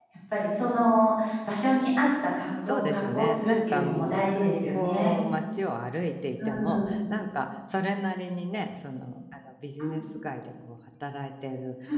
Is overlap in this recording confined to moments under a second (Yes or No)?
No